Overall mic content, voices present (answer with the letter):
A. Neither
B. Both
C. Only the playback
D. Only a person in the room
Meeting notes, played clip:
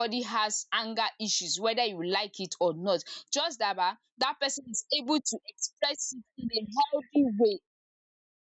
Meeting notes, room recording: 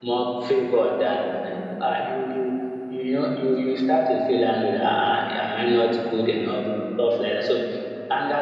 D